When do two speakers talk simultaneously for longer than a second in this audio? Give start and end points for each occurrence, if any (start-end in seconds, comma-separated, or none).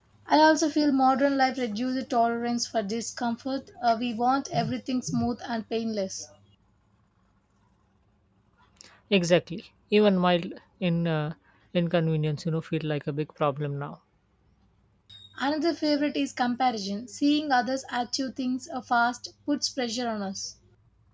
none